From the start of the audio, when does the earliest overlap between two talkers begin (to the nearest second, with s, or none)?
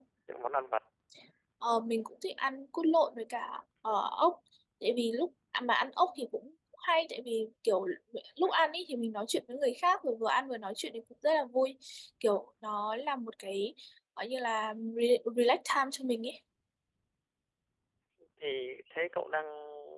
none